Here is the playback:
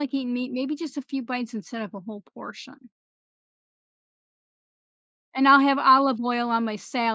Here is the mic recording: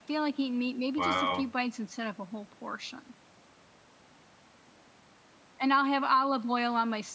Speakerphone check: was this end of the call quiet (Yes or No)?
No